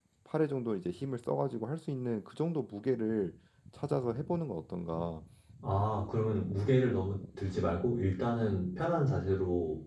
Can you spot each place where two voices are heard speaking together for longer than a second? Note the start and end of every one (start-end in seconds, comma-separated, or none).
none